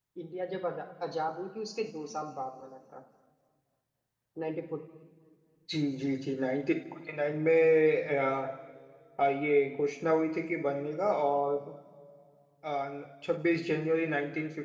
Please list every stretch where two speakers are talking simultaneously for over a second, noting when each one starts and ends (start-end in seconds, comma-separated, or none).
none